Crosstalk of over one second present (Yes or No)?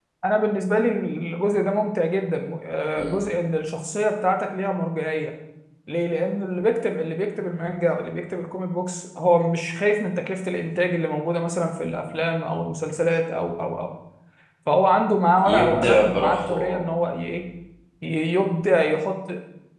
Yes